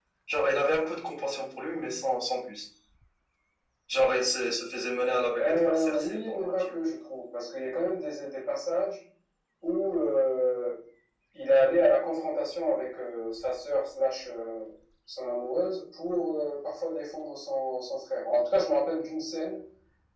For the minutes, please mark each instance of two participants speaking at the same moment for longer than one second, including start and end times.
5.4-6.8

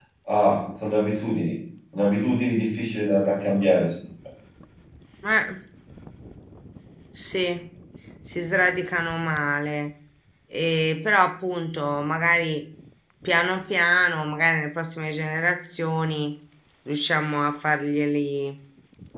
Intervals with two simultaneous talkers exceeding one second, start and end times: none

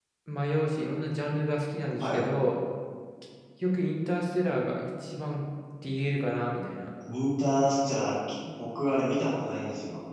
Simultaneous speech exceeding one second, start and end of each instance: none

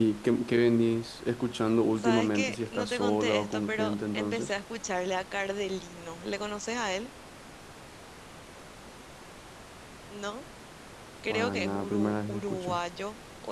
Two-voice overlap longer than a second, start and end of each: 2.0-4.5, 11.3-12.8

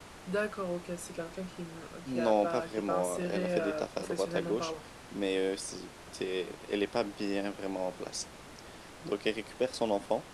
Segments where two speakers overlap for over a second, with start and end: 2.1-4.7

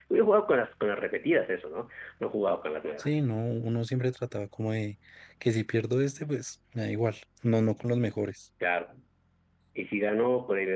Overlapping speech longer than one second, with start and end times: none

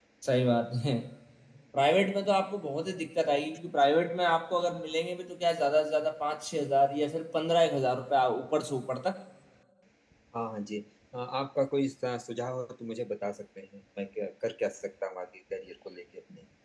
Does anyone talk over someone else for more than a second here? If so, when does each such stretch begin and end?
none

